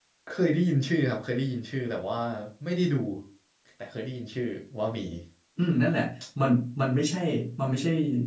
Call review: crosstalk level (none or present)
none